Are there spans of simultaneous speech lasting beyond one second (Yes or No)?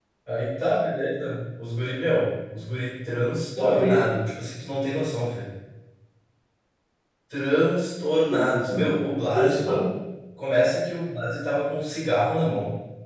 No